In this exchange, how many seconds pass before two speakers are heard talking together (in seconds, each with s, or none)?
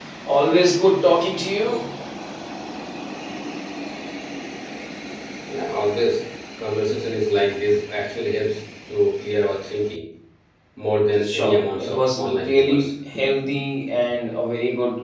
11.2 s